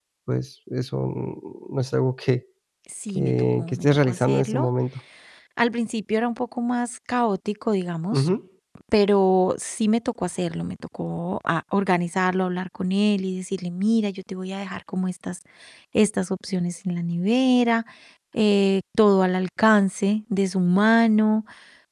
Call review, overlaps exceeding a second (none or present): present